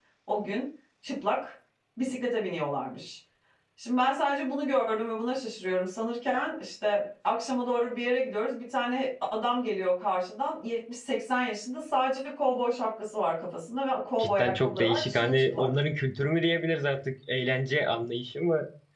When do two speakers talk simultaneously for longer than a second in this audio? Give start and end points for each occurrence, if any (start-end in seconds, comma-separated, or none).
14.2-15.7